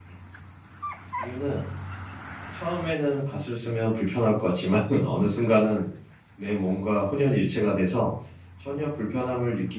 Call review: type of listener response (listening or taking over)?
listening